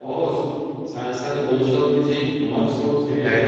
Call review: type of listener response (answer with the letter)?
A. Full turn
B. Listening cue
A